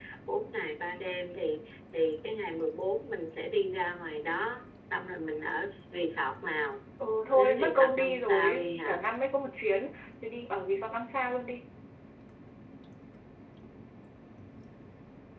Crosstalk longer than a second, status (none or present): present